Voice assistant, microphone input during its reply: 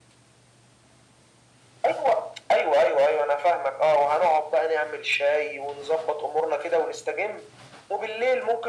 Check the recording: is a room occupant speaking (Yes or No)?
No